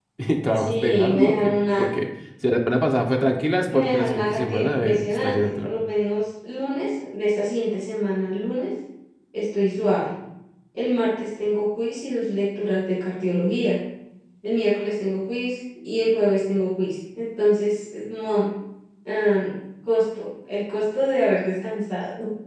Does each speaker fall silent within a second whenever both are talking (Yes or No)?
No